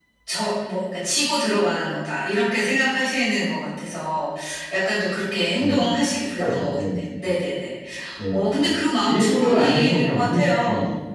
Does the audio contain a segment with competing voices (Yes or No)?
Yes